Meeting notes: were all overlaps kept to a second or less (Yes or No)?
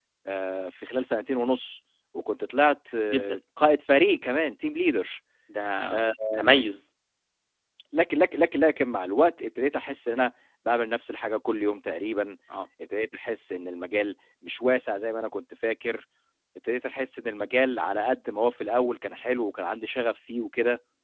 Yes